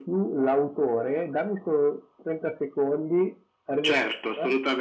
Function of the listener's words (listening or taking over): taking over